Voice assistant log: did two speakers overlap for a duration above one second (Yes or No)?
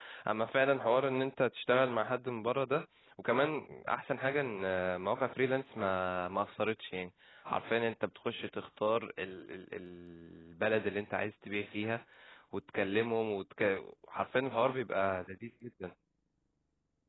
No